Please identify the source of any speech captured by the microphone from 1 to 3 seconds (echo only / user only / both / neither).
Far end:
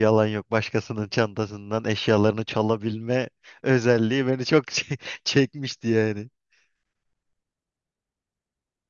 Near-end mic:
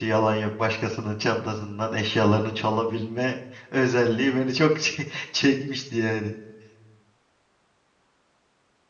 echo only